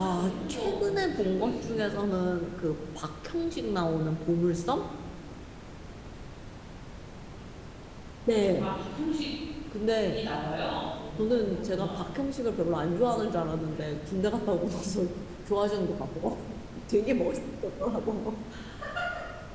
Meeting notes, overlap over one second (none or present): present